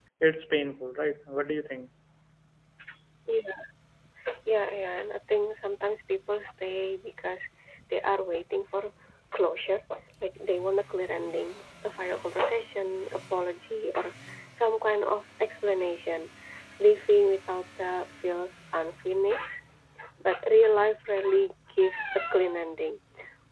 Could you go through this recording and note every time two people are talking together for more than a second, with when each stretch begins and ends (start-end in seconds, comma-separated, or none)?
none